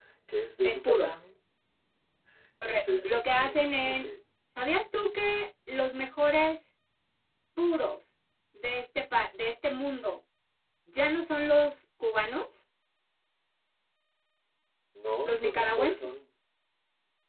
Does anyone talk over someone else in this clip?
Yes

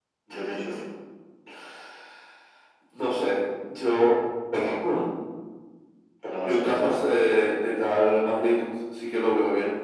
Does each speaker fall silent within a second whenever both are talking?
Yes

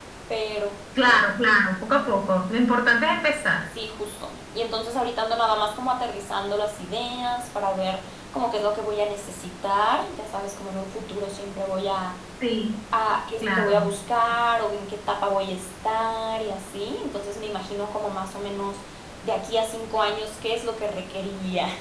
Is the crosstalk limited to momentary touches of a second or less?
Yes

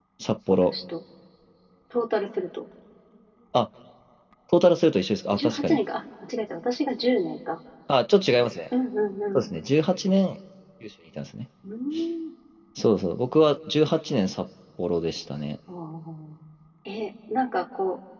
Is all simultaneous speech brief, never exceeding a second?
Yes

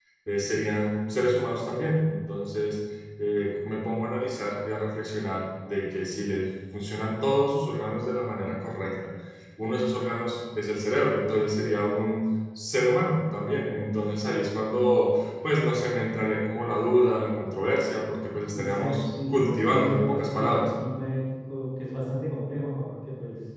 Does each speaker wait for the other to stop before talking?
No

